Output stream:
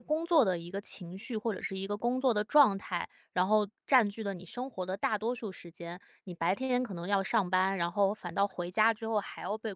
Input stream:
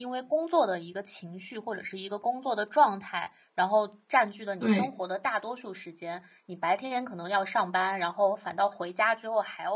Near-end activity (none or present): present